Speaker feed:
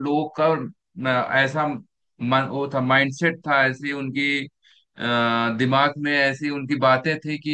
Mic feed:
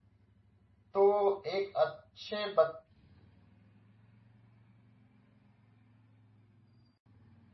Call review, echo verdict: none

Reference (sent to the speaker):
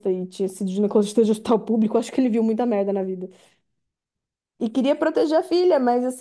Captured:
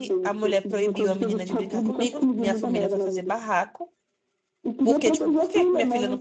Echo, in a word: present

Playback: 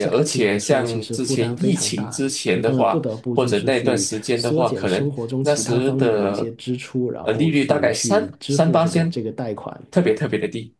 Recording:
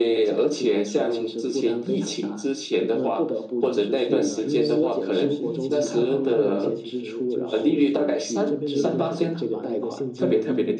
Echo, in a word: present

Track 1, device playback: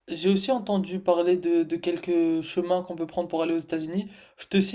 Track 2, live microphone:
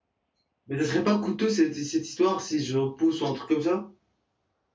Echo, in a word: none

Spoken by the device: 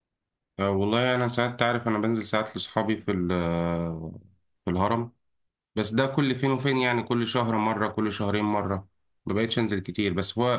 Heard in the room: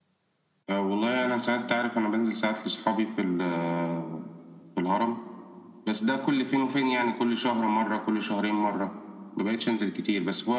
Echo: present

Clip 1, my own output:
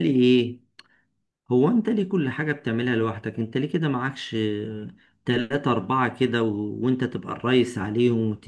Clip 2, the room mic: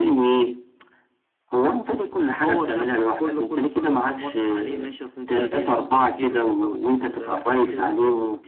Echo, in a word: present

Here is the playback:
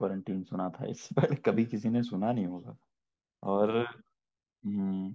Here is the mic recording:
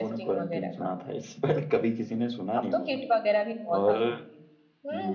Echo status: present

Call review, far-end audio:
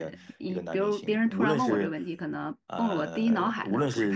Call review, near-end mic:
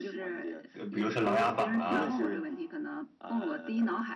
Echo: present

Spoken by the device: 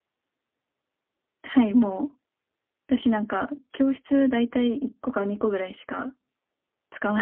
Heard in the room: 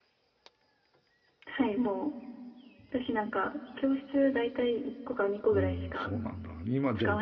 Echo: present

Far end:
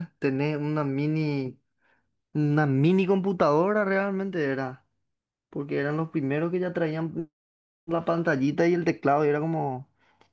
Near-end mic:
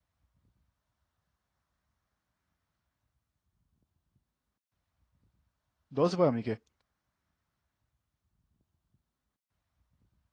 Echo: none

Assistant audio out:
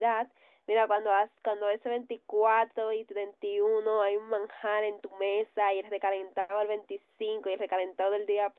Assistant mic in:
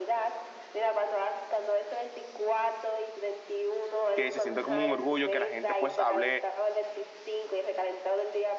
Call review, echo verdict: present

